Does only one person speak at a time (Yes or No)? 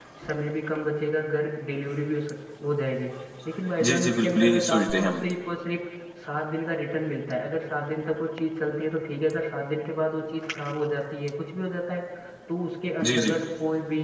No